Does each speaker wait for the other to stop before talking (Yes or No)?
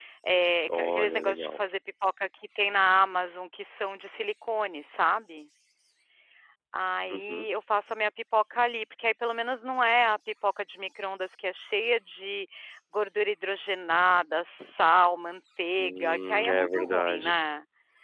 No